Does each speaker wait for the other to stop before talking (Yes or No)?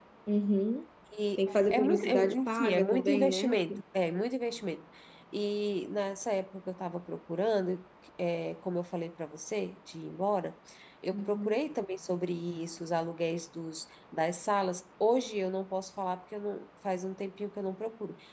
No